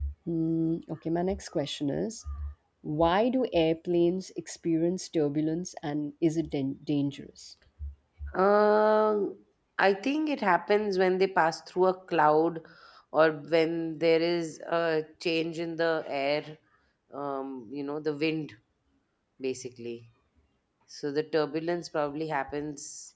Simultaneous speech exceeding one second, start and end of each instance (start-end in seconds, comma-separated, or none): none